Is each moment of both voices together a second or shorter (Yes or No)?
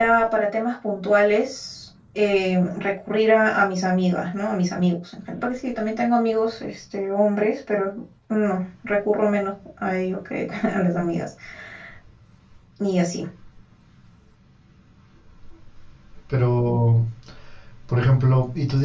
Yes